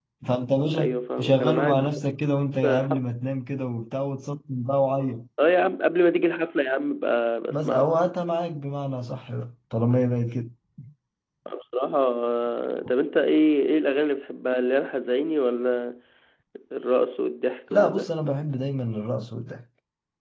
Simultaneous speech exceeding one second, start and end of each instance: 0.8-2.0

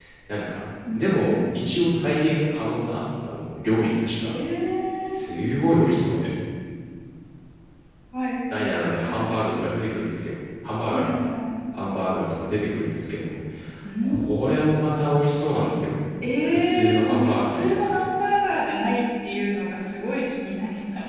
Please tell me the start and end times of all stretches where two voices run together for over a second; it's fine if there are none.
16.4-18.0

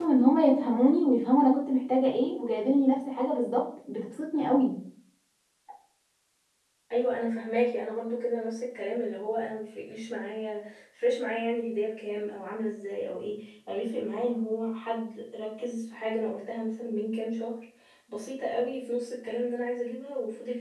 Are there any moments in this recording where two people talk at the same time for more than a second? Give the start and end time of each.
none

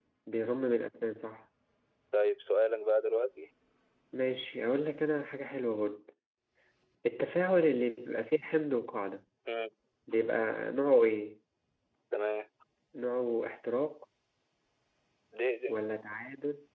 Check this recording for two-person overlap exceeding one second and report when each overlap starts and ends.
none

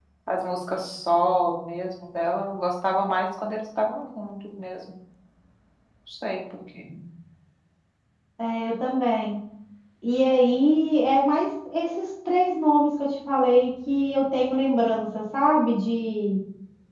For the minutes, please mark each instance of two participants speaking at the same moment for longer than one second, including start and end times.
none

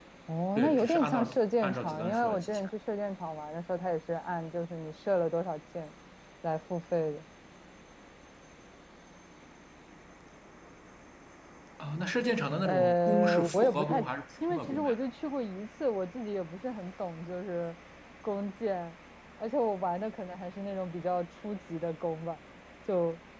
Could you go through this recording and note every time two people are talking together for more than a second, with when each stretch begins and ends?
0.6-2.7, 12.6-14.0

